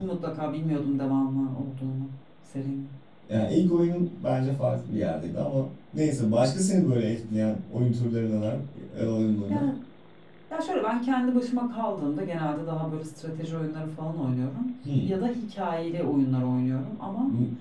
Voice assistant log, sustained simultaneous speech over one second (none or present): none